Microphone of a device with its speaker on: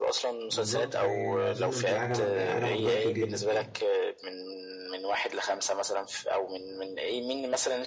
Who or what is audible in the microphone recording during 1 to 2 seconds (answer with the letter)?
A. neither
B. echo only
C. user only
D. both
D